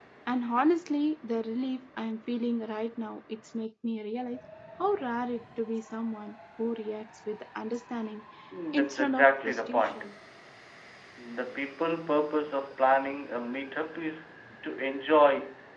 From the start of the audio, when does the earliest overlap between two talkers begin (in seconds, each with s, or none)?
8.7 s